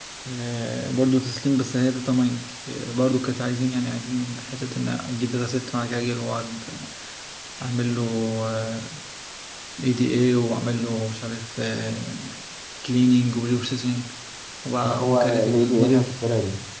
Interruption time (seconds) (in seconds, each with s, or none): 14.8 s